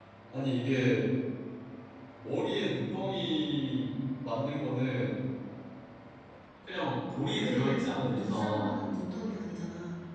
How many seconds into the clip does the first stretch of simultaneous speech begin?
7.4 s

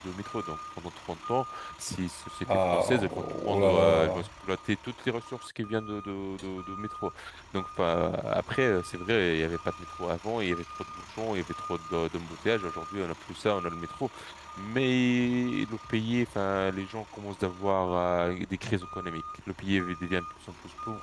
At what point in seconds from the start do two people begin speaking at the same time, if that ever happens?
2.7 s

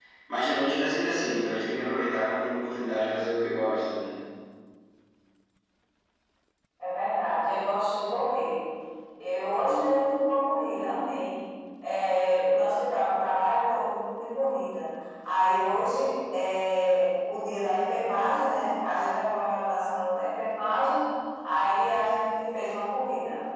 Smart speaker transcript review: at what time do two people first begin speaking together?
none

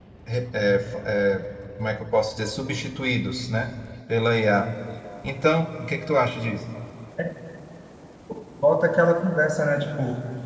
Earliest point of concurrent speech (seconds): none

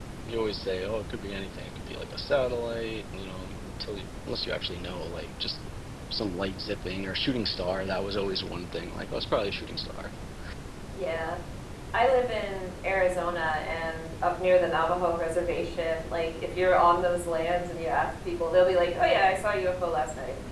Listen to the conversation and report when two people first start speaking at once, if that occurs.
none

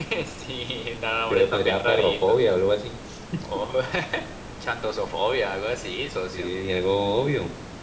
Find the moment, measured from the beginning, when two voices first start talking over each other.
1.0 s

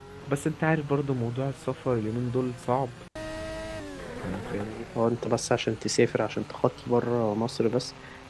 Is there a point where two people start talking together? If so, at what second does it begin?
none

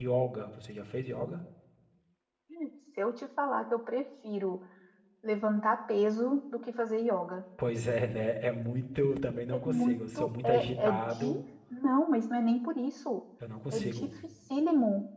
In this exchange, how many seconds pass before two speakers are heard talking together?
9.5 s

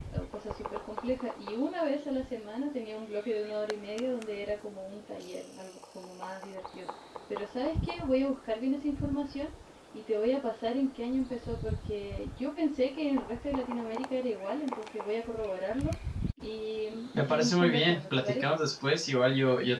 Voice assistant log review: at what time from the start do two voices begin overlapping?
17.1 s

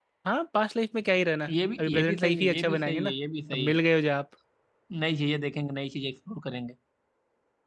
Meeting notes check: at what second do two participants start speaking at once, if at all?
1.8 s

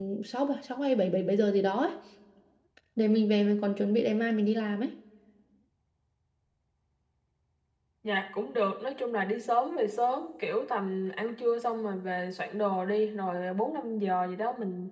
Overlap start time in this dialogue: none

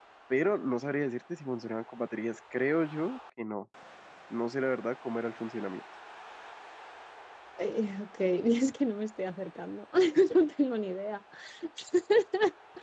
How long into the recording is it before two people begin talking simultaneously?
none

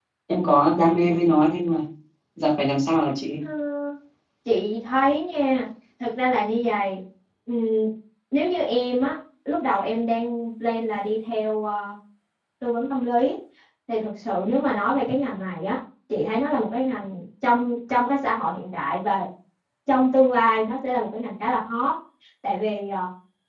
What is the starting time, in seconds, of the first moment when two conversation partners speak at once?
none

